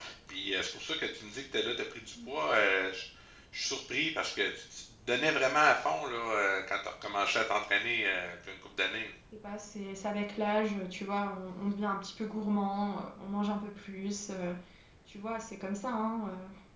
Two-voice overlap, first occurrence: none

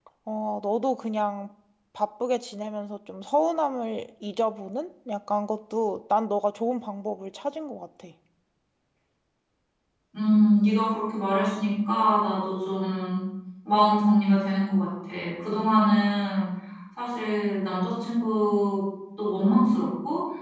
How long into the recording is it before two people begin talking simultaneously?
none

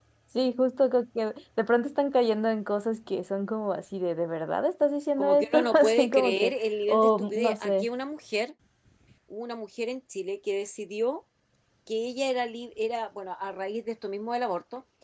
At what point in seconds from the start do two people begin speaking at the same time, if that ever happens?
5.2 s

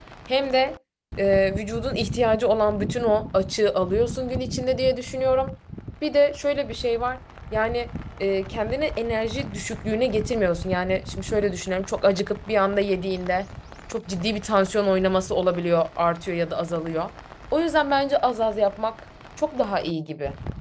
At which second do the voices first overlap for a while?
none

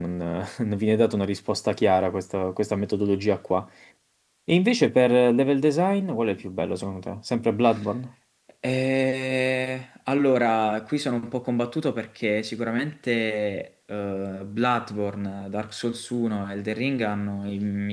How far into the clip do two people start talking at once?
none

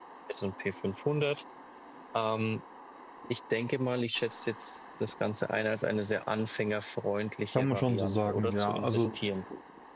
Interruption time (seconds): 7.5 s

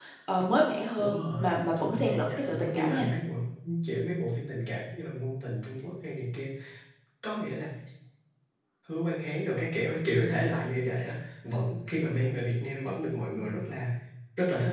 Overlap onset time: 1.0 s

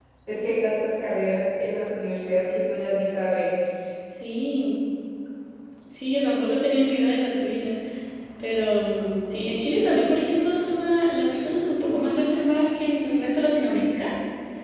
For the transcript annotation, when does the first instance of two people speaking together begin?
none

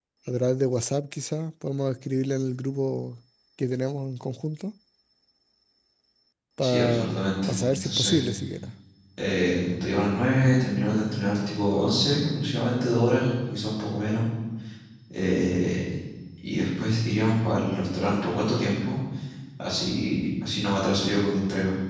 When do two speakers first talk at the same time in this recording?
6.6 s

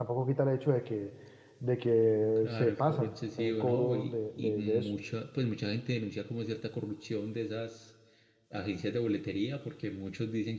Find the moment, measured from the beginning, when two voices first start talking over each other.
2.4 s

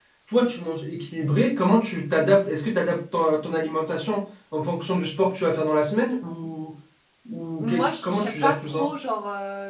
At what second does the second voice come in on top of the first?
7.6 s

